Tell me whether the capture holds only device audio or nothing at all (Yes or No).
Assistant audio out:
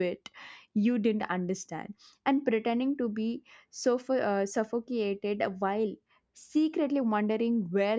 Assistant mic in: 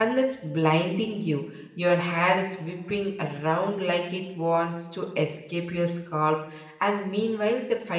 No